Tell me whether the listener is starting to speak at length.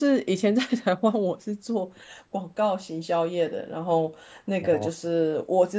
No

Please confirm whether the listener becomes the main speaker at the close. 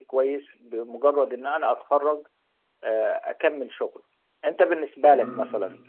No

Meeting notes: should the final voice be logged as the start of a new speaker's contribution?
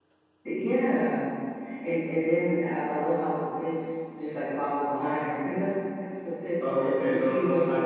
Yes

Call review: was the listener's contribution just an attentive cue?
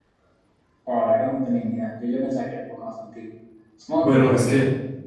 No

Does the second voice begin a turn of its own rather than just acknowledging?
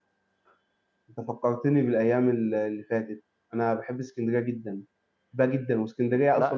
No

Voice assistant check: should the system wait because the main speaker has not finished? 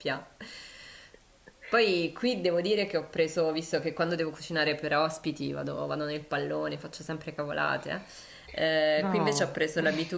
Yes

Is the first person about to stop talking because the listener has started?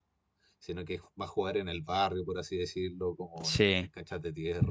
No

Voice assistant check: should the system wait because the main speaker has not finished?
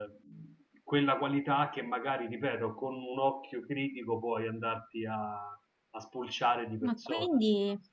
No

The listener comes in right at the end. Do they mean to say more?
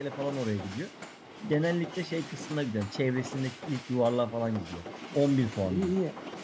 Yes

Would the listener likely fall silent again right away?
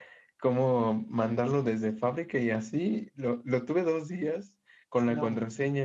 Yes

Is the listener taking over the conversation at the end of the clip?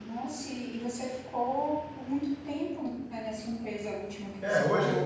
Yes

